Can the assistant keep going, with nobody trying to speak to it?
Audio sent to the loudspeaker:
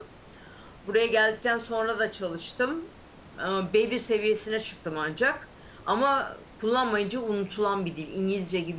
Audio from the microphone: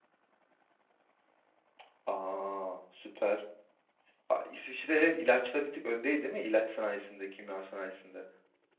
No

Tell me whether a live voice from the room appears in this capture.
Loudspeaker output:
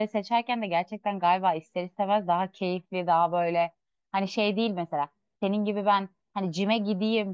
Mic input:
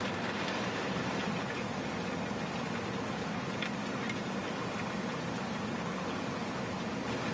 No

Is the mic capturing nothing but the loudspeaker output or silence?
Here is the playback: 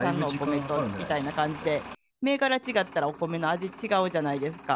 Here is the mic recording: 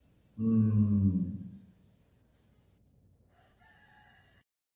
No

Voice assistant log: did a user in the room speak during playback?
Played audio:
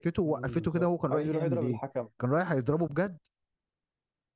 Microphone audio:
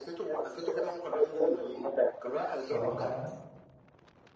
Yes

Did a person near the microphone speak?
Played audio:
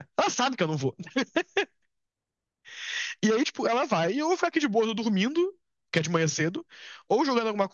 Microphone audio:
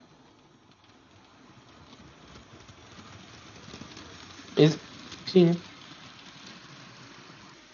Yes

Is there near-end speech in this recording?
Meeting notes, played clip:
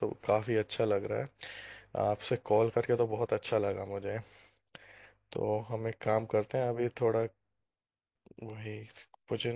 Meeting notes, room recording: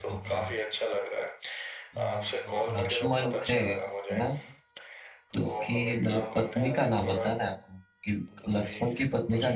Yes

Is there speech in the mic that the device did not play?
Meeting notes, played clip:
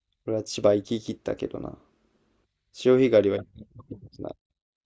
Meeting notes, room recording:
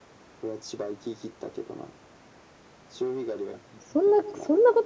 Yes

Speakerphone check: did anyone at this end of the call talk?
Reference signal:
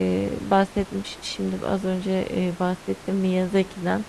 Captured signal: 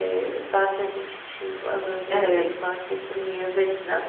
Yes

